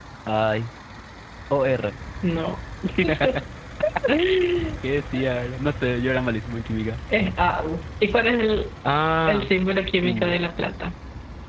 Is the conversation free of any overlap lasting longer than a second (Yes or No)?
Yes